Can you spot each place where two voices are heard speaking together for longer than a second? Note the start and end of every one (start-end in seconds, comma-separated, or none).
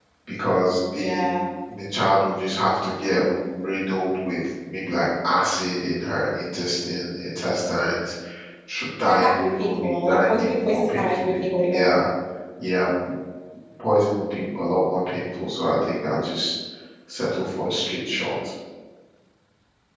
9.1-12.0